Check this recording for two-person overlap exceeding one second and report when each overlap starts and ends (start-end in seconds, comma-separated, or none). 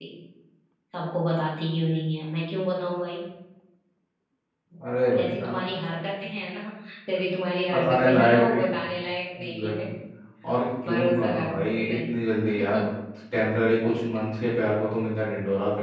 7.7-9.0, 10.8-12.1